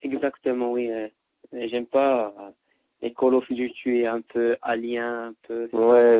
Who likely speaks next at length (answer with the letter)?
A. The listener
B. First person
A